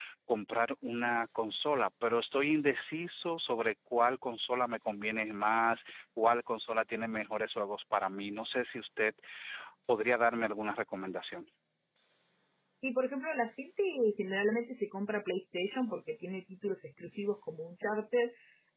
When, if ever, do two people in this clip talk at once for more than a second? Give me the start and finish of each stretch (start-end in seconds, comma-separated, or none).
none